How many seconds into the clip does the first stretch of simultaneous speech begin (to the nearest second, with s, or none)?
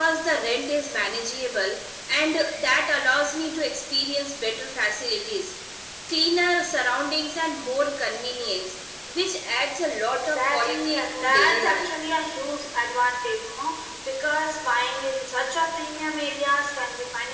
10 s